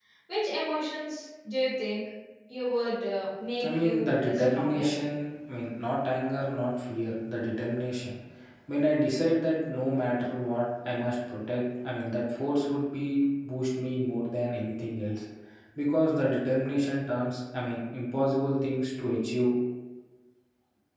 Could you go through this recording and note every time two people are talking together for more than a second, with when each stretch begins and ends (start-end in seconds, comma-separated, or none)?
3.6-4.9